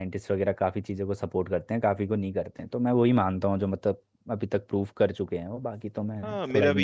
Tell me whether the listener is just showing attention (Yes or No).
No